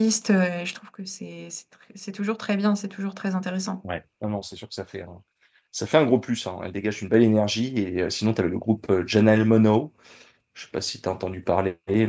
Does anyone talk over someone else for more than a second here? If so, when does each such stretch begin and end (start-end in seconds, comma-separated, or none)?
none